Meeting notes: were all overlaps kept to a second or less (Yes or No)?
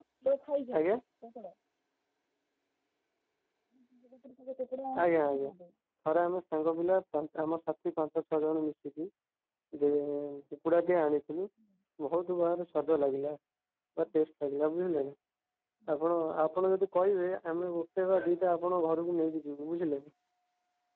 Yes